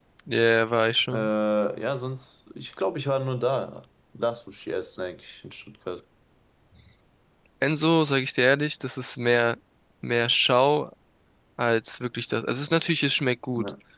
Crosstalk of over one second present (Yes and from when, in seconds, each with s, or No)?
No